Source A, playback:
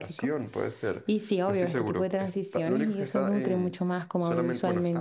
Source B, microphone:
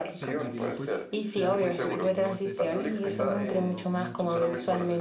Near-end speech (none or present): present